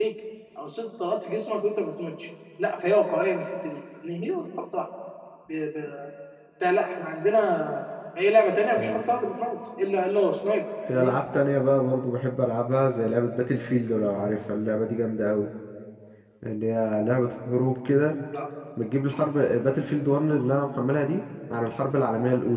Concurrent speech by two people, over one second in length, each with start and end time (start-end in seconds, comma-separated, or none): none